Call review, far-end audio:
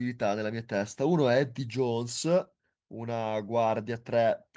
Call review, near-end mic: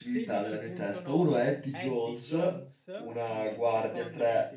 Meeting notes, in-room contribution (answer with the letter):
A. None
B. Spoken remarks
B